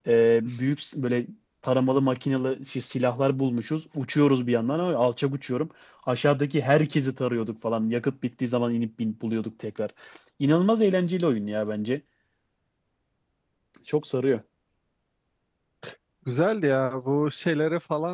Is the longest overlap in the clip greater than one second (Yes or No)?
No